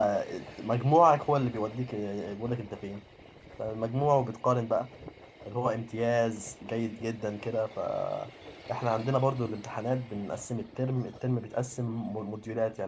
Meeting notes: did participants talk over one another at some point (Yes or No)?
No